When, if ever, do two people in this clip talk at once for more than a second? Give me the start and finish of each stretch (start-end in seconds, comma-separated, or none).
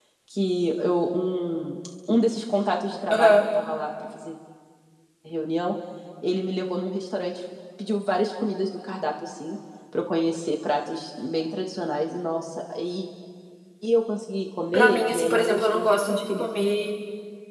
14.7-16.5